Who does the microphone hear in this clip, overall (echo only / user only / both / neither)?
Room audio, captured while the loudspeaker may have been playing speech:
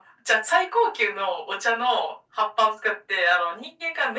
echo only